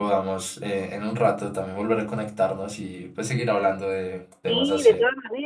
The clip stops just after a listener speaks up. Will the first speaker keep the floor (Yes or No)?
No